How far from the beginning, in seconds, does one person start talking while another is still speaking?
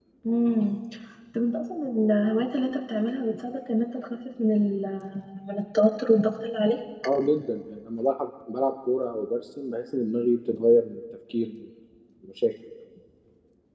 none

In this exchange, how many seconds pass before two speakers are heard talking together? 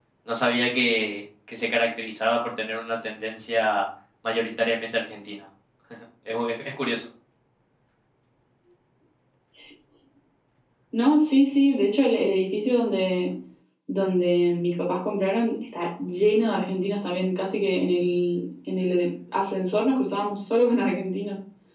none

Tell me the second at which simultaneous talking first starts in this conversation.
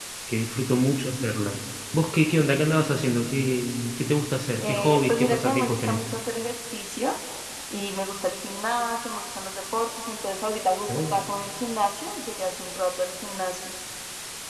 5 s

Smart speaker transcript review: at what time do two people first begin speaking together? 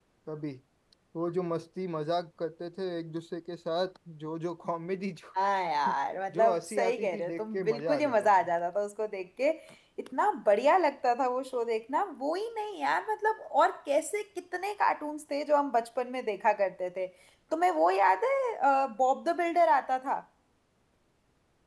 6 s

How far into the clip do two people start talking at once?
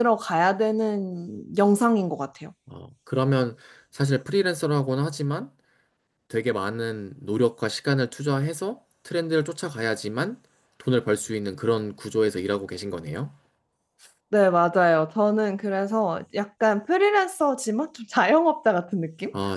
none

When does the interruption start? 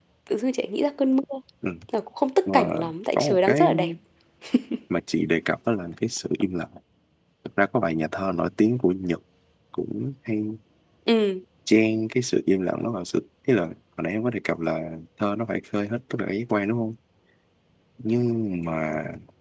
2 s

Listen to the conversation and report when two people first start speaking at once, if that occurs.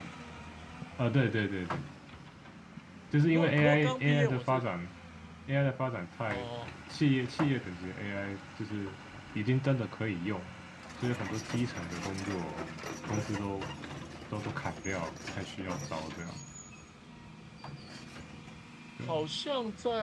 3 s

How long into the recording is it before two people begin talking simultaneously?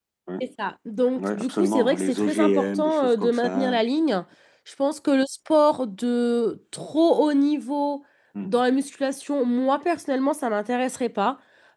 1 s

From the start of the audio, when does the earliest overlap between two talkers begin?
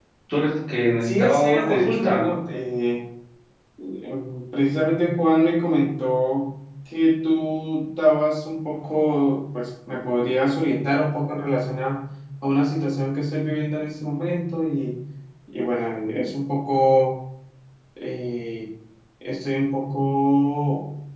1 s

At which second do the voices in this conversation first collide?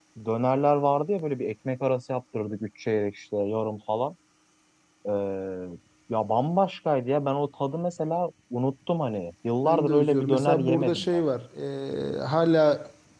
10 s

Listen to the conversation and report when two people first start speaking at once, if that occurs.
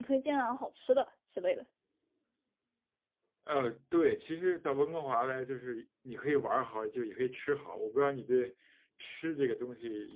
none

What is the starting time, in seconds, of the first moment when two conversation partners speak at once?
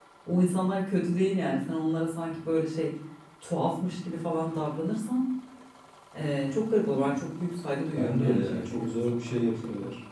8 s

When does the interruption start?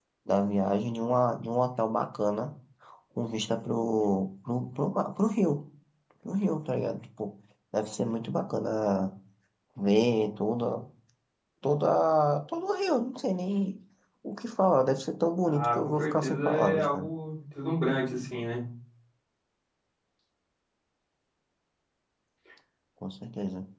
15 s

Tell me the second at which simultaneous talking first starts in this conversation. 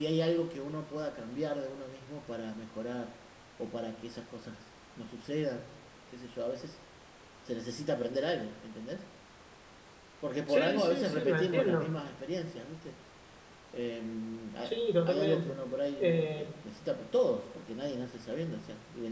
10 s

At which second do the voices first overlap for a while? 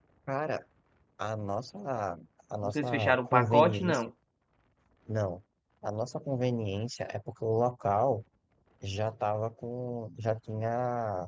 3 s

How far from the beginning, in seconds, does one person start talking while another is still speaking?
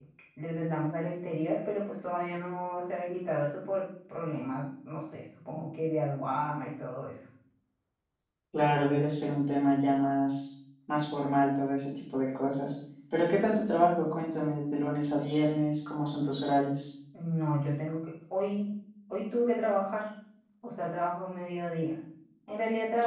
none

